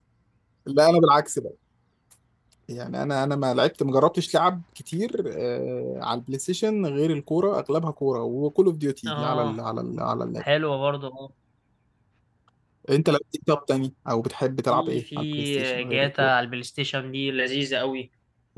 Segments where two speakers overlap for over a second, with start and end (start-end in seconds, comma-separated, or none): 14.7-16.3